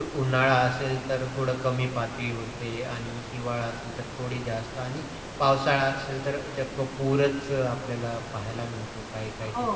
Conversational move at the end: taking over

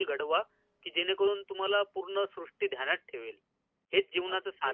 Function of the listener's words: taking over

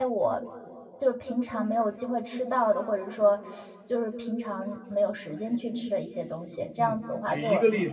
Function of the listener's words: taking over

